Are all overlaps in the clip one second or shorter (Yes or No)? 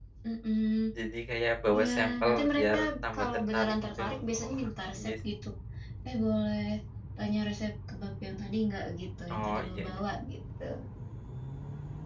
No